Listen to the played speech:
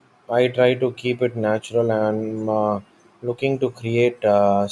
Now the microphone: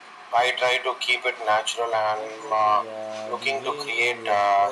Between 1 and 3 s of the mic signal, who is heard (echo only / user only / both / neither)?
both